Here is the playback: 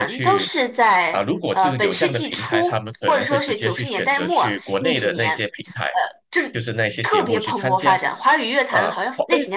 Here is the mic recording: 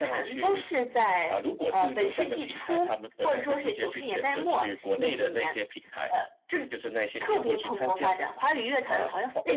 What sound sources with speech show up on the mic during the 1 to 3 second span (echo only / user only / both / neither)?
echo only